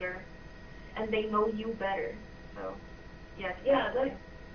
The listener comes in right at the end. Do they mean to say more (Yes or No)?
Yes